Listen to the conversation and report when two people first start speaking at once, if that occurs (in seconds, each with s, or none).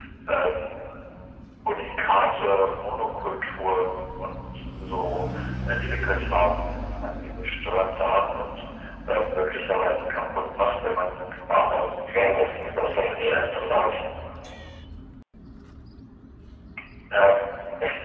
12.8 s